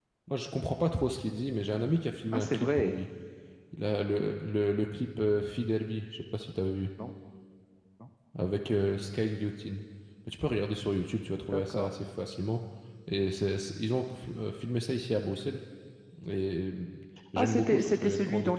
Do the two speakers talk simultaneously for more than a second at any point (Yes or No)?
Yes